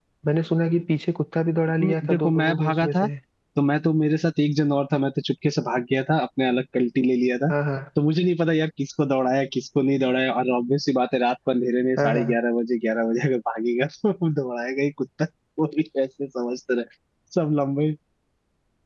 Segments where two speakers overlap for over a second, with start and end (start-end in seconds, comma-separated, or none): 1.8-3.1